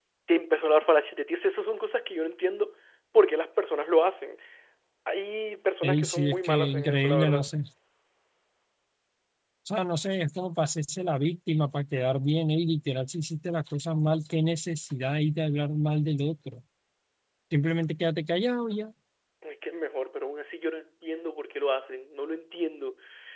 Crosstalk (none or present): present